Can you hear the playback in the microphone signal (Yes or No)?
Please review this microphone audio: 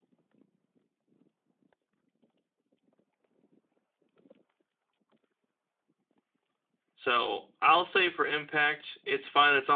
No